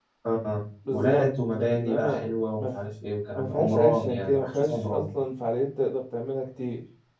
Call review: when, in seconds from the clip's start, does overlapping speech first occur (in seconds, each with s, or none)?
0.9 s